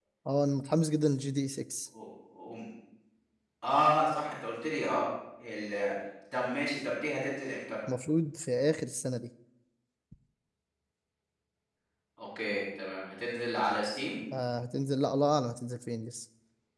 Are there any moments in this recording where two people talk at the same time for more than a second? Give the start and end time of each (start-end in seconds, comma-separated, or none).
none